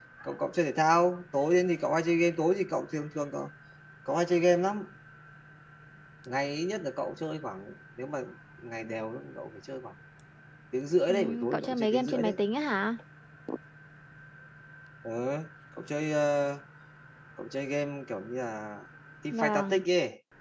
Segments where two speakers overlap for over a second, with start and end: 11.1-12.4

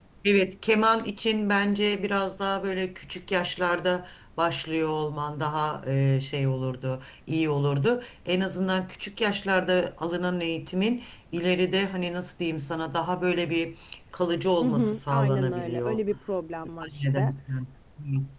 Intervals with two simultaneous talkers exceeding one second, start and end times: 14.6-16.0

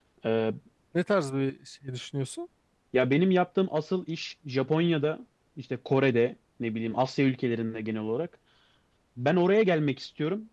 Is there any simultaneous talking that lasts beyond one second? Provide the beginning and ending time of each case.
none

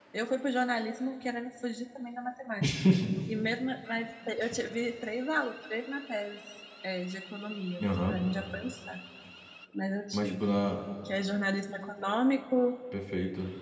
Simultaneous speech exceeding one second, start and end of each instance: none

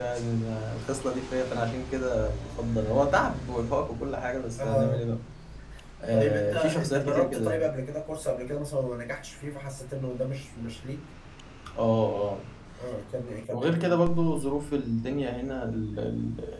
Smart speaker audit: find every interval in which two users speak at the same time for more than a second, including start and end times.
6.1-7.6

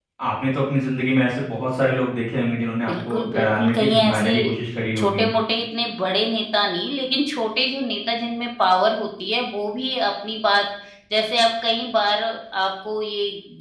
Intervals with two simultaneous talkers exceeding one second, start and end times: 2.9-4.3

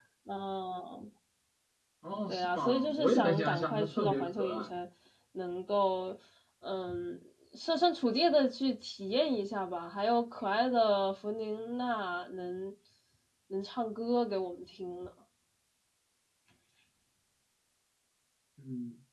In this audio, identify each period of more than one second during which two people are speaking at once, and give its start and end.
2.3-4.7

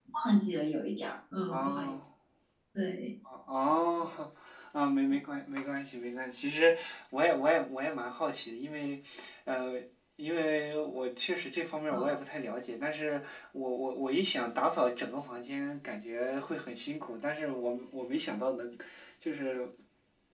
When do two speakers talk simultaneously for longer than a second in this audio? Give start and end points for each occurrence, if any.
none

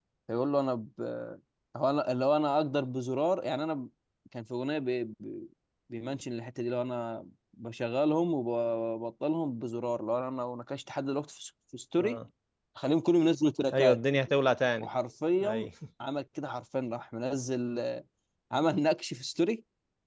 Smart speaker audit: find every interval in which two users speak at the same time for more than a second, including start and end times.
none

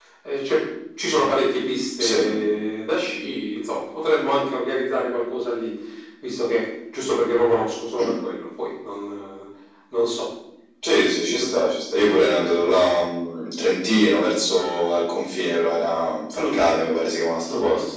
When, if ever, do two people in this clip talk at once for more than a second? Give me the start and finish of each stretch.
none

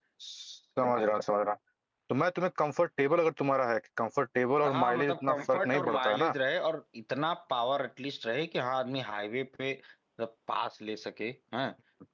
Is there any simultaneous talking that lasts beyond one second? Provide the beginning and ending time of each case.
4.6-6.3

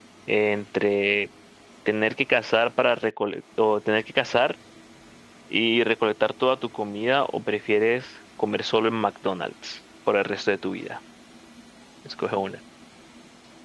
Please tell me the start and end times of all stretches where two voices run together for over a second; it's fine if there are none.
none

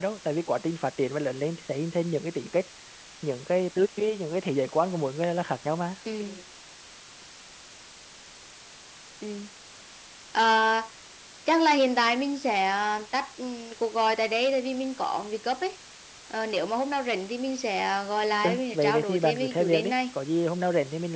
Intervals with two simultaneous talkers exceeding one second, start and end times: 18.4-19.9

